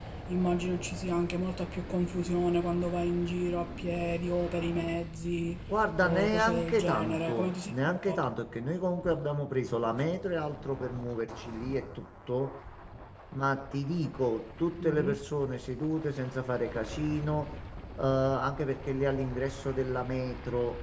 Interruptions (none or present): present